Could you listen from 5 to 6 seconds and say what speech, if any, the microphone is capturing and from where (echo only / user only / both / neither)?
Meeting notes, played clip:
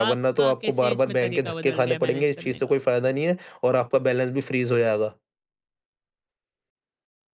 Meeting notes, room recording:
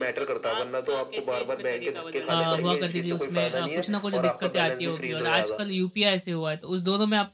both